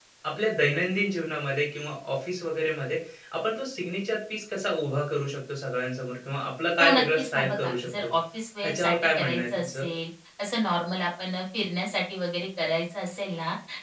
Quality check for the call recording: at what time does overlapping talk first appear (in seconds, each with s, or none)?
6.8 s